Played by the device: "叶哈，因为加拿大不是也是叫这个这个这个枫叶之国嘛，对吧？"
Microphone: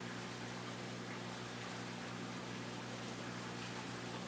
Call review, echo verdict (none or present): none